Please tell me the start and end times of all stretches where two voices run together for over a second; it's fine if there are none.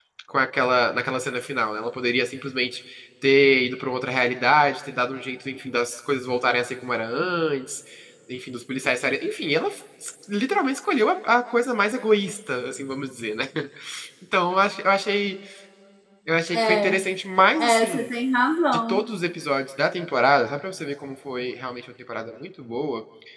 none

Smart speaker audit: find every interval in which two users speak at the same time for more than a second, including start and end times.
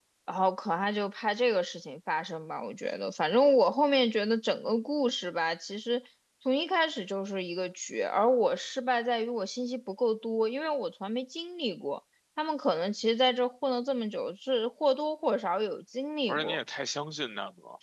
none

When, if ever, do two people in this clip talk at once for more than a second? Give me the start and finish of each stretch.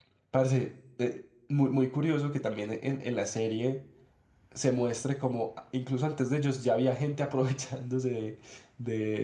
none

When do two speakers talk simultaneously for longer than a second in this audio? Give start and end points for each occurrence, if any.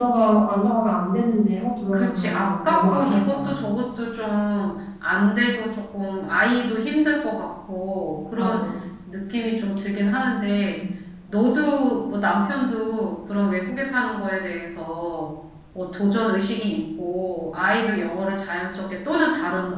1.9-3.6

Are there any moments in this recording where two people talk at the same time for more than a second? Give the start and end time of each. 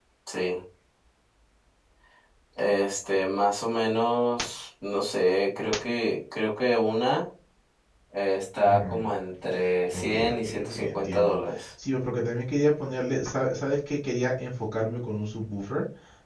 9.9-11.4

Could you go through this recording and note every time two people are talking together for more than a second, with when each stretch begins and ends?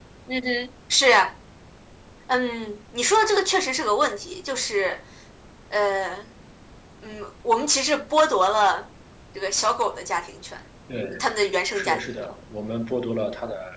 none

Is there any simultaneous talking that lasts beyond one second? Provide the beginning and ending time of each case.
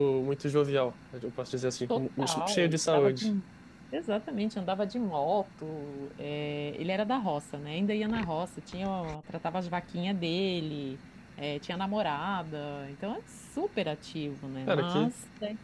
1.9-3.2

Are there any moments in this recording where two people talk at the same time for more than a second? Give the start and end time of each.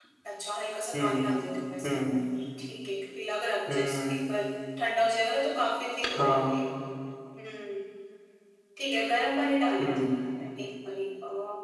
none

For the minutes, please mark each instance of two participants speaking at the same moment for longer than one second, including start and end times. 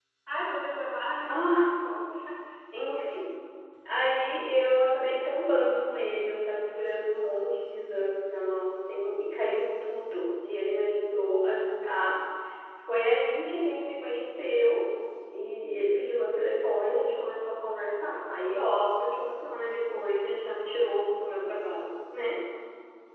none

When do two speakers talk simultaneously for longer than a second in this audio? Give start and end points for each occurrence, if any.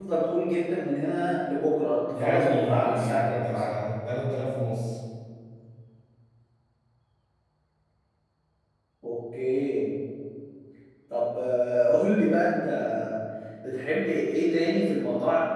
2.1-3.6

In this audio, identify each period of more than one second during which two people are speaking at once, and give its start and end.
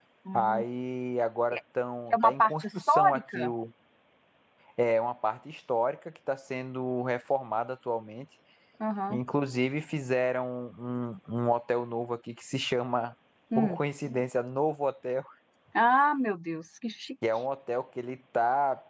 2.1-3.5

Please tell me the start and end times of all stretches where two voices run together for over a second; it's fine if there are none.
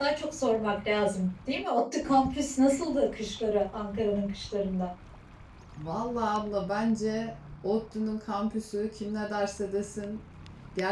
none

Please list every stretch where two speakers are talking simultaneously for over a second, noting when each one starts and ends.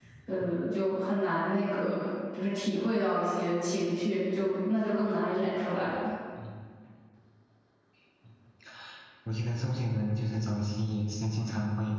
none

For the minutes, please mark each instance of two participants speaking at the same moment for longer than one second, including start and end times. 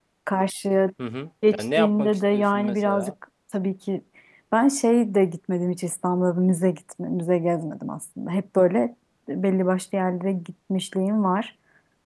1.5-3.1

